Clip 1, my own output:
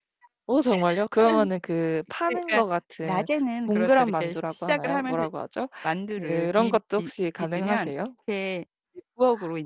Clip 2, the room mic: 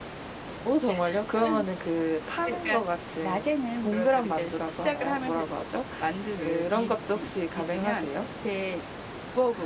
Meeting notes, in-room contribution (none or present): none